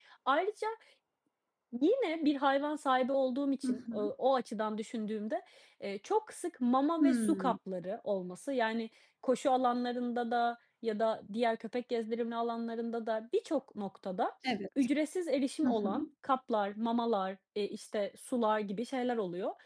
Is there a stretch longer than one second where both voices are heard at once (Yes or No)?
No